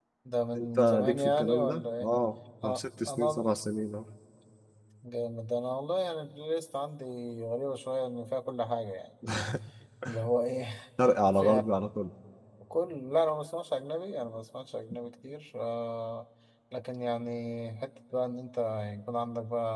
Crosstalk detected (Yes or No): Yes